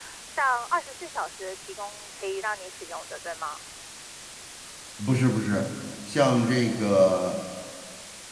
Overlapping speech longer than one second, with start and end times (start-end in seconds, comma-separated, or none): none